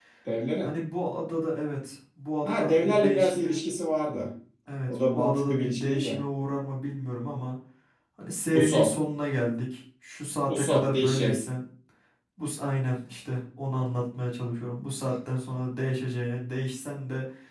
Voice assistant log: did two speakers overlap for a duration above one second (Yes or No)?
Yes